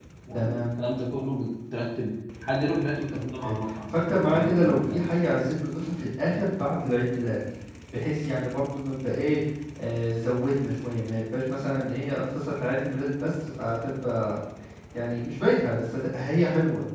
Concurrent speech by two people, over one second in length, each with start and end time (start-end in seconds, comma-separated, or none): 3.1-5.0